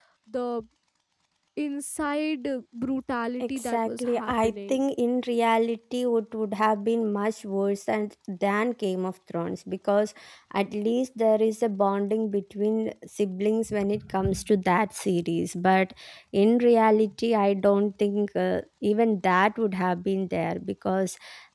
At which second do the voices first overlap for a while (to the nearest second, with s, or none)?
3 s